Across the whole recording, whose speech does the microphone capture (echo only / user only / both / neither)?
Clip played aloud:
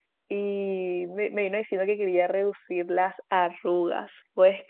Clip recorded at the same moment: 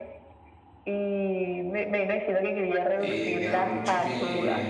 both